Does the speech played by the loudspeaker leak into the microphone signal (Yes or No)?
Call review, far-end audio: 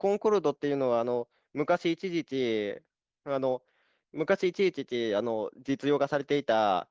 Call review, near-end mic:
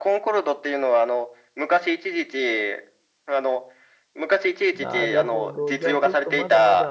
Yes